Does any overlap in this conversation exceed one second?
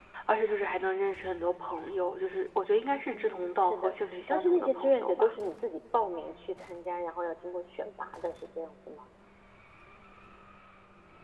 Yes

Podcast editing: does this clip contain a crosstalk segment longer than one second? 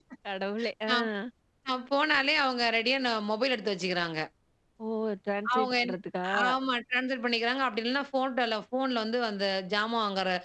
No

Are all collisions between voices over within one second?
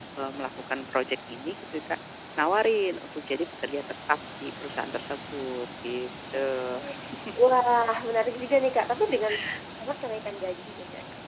Yes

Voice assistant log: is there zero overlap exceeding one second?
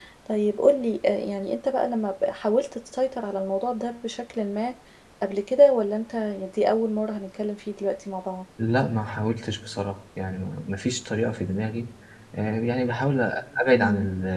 Yes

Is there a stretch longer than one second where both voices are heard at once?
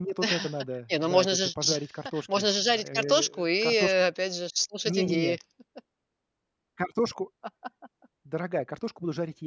Yes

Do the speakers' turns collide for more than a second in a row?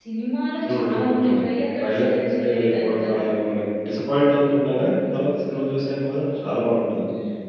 Yes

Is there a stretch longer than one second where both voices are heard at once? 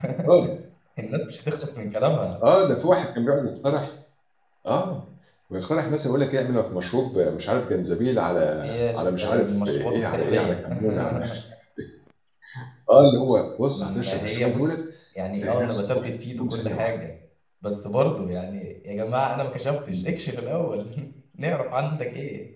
Yes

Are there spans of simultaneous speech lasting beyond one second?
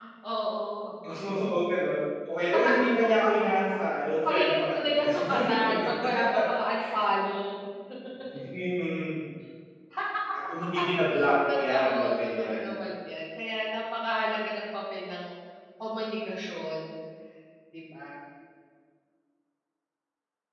Yes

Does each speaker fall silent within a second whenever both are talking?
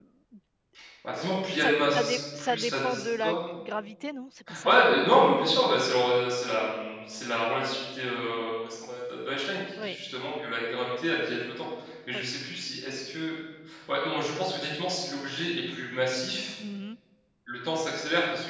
No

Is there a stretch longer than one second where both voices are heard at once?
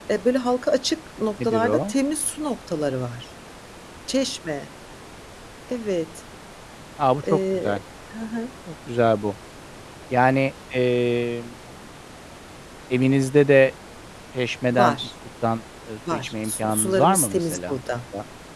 Yes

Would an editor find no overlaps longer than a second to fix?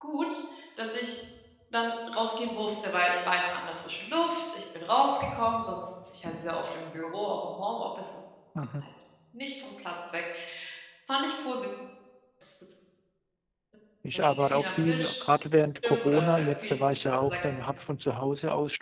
No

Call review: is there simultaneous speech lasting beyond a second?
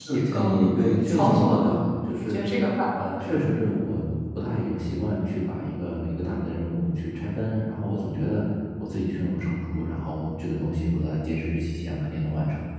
Yes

